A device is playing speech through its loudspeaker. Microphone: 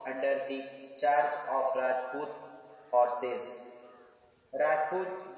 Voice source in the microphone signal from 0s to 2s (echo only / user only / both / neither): echo only